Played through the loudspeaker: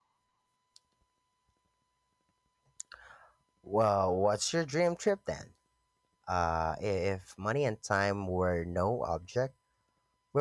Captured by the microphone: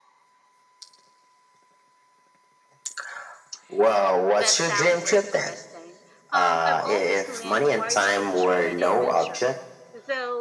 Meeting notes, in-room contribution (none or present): present